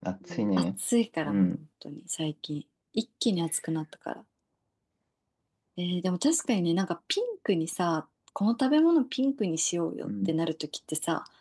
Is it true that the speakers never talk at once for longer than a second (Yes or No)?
Yes